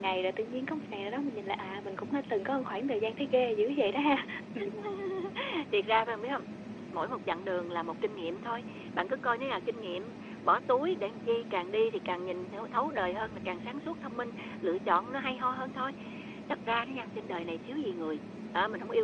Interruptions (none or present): none